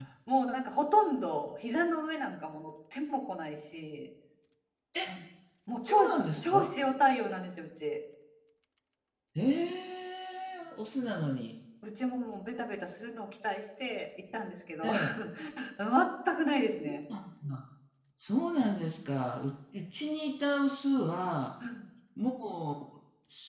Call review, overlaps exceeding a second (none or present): none